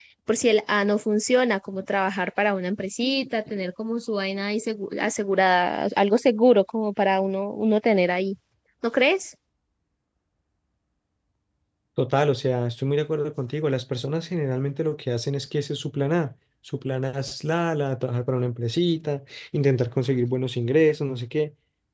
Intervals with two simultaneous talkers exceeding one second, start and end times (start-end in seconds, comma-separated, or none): none